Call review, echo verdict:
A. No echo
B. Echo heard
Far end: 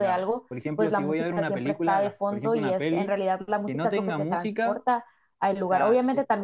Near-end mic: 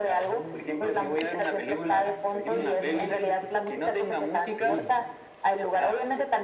B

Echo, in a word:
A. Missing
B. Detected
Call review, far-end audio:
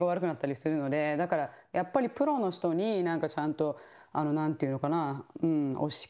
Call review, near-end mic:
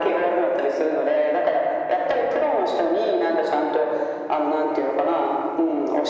B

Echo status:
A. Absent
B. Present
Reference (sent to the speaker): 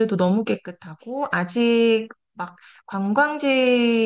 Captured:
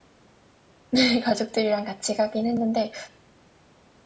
A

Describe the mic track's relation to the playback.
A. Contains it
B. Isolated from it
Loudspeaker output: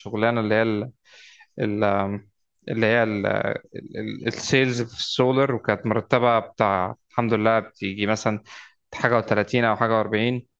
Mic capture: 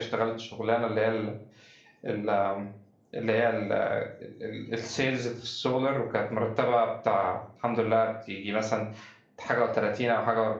A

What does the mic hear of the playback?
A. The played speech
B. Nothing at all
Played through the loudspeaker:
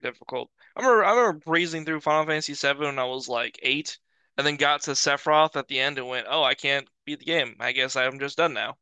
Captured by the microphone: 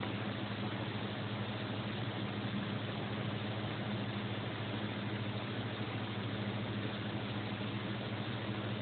B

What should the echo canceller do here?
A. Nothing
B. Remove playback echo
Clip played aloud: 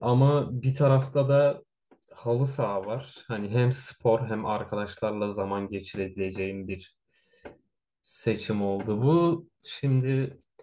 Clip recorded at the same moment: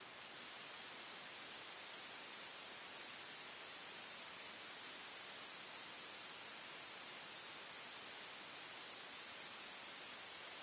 A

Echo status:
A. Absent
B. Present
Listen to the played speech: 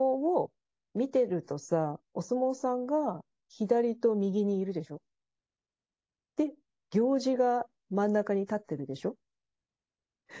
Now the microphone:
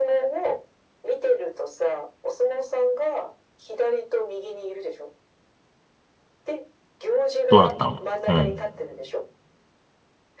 B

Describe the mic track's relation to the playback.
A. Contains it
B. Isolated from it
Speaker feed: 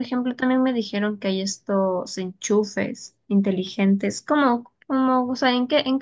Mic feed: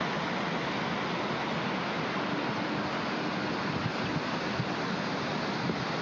B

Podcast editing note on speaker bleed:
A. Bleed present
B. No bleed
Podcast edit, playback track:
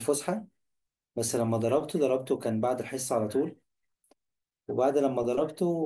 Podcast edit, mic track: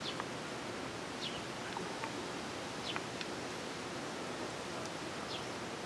B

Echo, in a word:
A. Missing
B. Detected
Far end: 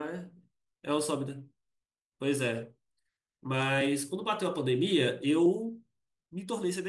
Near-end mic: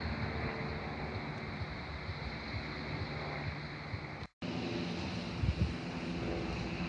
A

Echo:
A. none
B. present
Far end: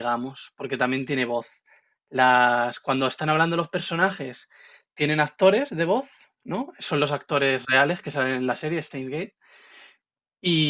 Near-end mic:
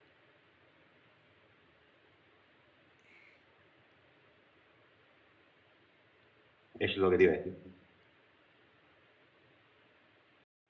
A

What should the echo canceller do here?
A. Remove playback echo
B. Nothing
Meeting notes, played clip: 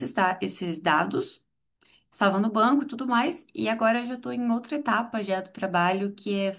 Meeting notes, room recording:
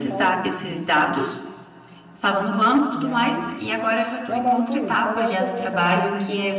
A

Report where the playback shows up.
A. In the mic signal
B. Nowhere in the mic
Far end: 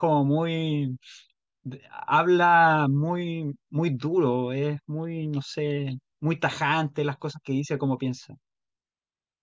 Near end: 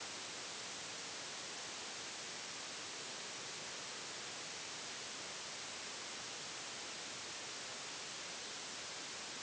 B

